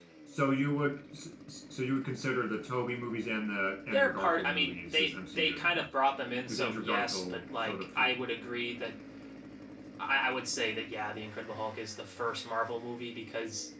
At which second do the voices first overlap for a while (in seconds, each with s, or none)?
3.9 s